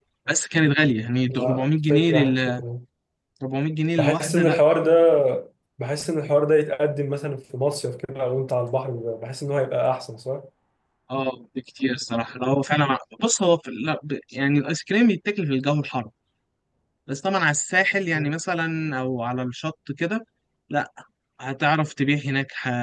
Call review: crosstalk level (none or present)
present